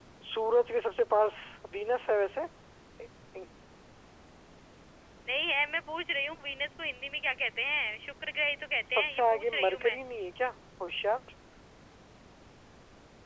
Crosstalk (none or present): present